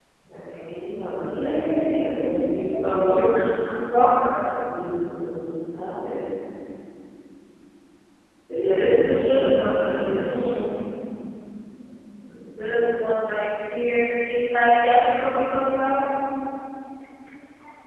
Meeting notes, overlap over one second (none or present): present